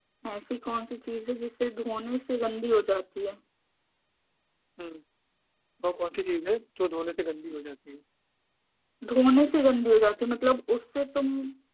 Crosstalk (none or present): none